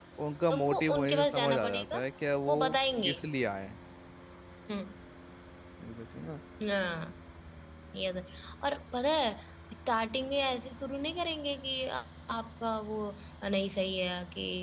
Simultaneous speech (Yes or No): Yes